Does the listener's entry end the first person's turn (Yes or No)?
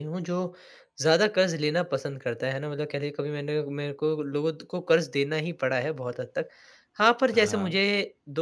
No